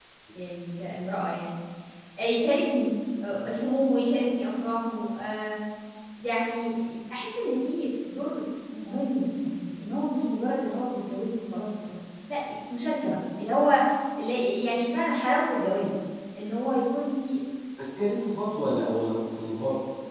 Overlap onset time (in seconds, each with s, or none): none